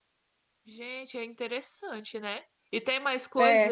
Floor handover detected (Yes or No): No